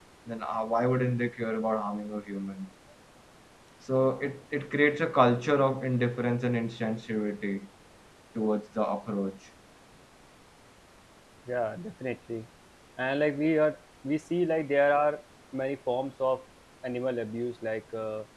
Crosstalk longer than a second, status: none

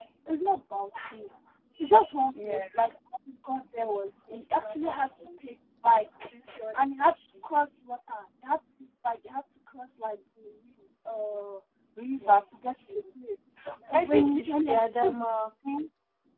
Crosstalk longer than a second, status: present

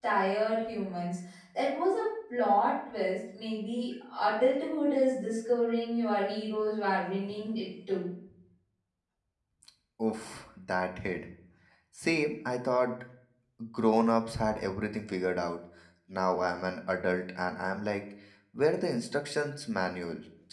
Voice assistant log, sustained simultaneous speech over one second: none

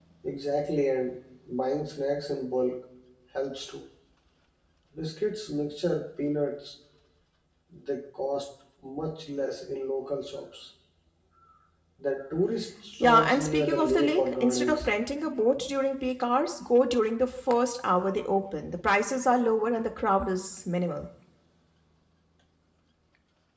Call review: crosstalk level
present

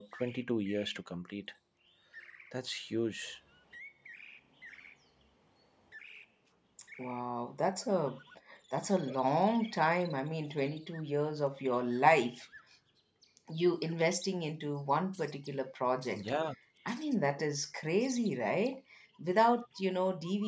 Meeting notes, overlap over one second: none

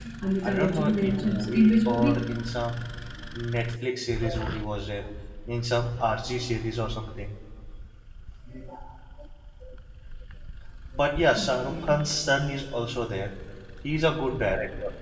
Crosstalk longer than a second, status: present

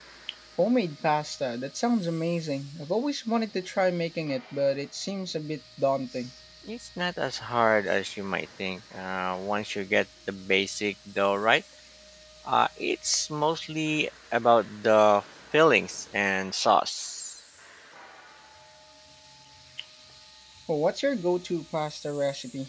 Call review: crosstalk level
none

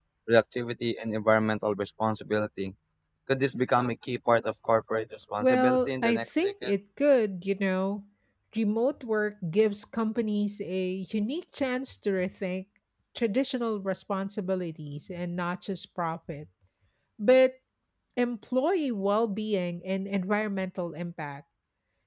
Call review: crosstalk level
present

